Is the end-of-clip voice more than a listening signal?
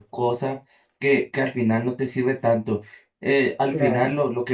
No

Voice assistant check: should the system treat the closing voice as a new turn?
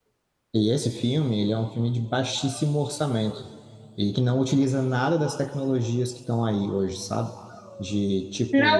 Yes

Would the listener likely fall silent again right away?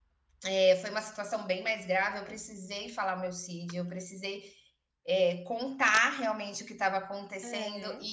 Yes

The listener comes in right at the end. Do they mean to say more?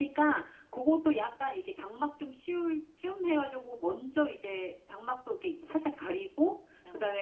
No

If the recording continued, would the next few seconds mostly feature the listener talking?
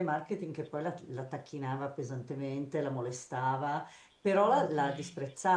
No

